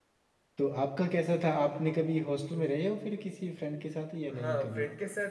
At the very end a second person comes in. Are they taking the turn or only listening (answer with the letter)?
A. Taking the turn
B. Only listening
A